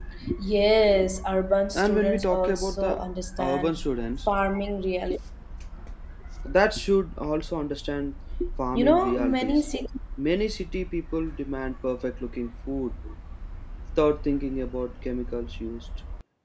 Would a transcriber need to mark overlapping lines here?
Yes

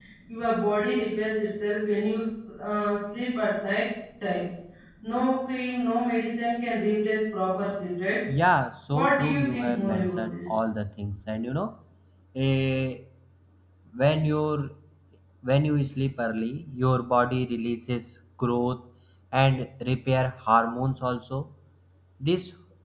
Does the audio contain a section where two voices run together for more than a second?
Yes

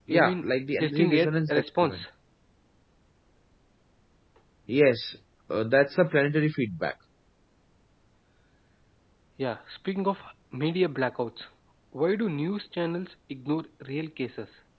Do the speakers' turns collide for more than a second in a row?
Yes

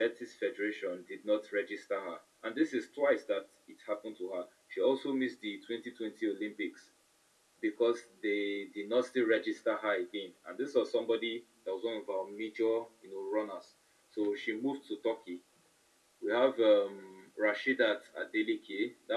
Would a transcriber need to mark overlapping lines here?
No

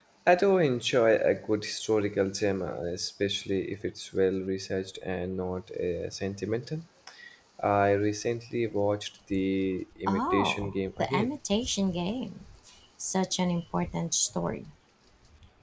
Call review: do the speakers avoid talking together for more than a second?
No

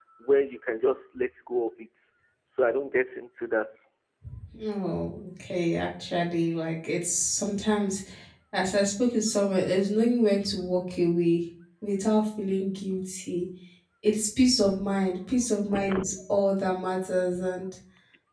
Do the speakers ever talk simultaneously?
No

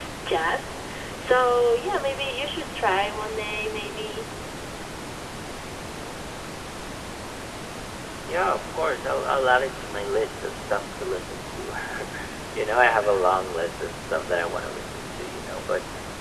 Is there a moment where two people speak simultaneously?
No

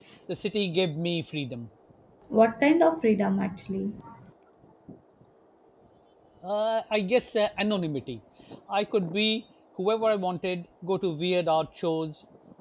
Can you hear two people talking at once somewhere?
No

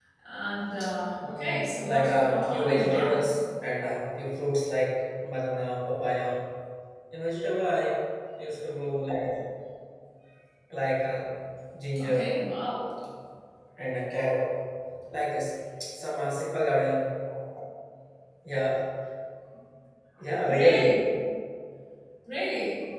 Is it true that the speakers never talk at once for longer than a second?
No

